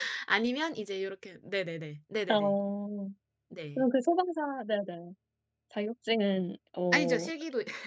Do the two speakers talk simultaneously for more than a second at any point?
No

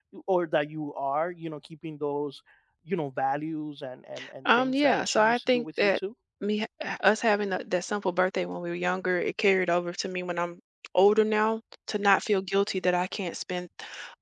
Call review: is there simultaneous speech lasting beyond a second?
Yes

